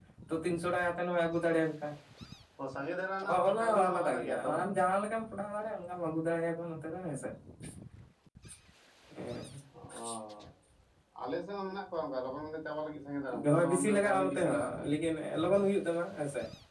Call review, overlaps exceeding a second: present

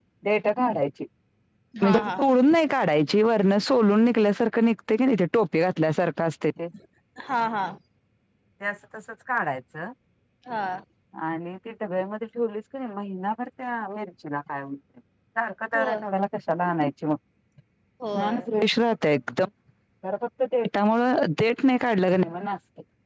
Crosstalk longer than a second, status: none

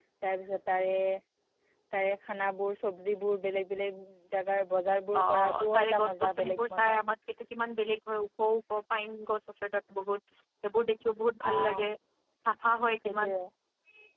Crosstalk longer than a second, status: present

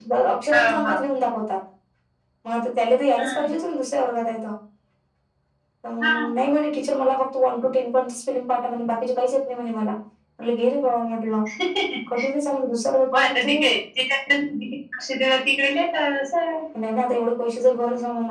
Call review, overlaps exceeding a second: none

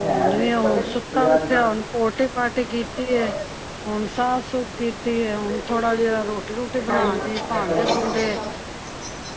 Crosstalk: present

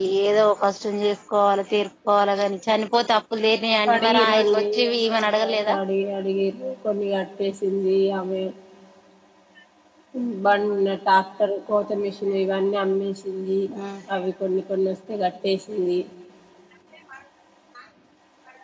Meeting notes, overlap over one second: present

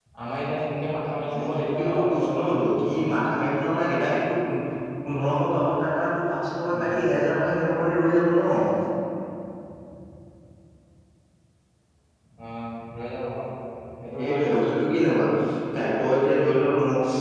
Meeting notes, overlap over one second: present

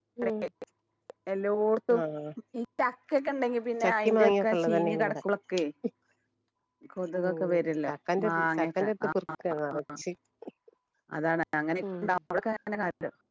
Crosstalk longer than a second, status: present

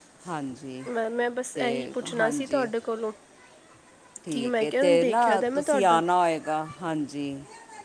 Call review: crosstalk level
present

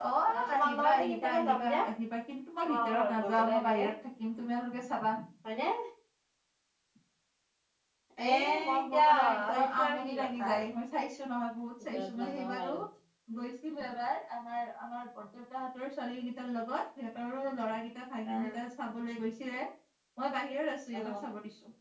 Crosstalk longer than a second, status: present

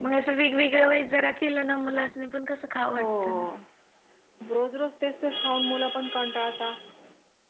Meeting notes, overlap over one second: none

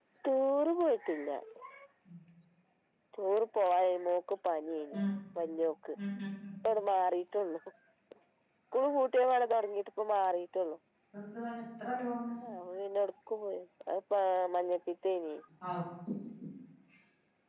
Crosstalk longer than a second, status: none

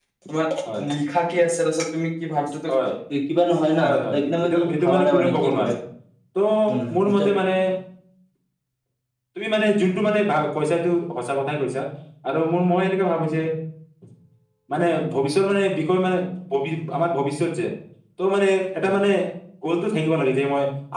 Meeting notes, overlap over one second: present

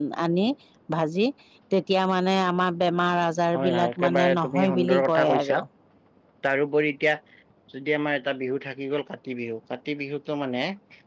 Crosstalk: present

